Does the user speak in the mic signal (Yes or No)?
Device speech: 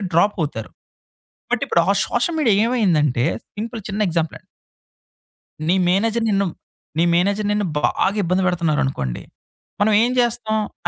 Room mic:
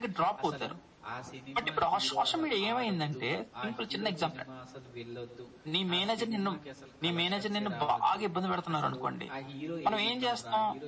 Yes